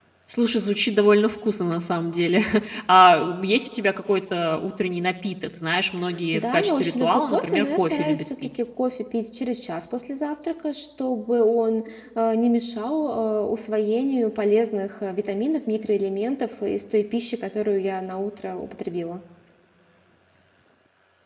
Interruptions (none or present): present